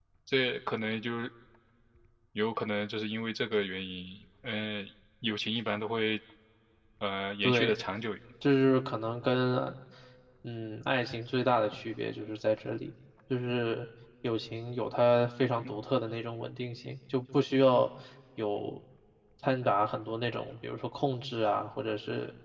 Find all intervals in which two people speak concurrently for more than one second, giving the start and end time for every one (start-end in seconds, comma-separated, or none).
none